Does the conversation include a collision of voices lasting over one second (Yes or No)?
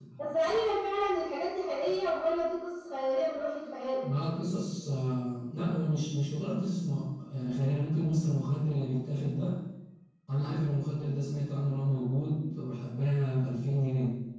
No